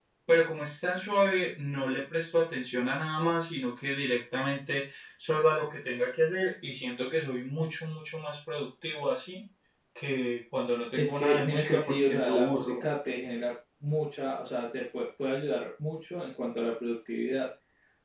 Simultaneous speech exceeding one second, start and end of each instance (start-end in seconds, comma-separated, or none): 10.9-12.7